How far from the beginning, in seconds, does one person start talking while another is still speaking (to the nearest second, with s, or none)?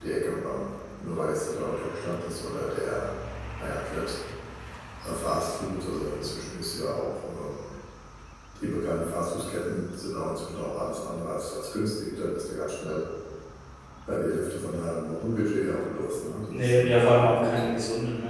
17 s